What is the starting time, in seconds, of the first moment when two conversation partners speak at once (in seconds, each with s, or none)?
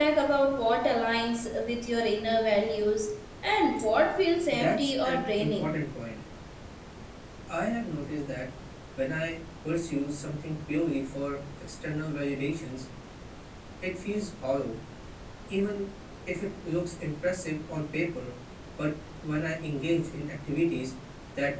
4.5 s